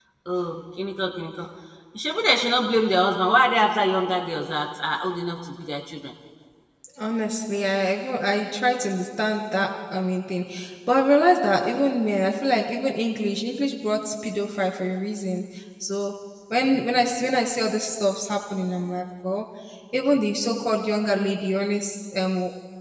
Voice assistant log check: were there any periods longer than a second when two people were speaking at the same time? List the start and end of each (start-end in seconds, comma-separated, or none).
none